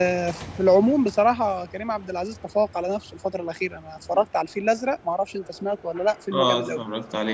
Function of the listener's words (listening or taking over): taking over